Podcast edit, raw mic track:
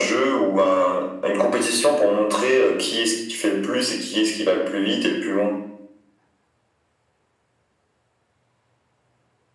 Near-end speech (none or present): none